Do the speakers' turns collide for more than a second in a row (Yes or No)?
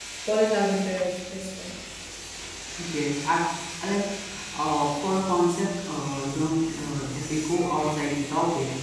No